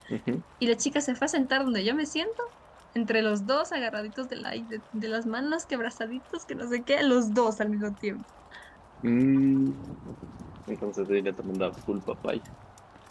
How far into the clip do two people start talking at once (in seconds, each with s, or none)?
none